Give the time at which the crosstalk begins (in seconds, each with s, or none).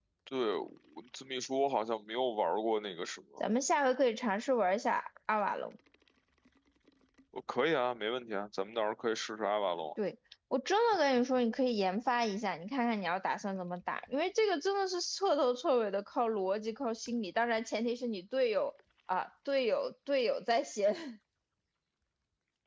none